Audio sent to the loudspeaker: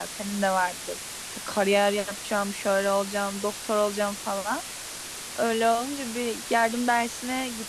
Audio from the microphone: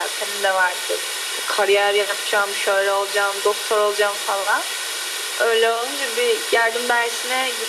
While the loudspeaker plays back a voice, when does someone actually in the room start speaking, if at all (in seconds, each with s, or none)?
none